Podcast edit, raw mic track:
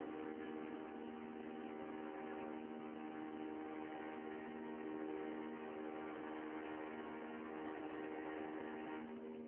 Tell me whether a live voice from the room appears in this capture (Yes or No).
No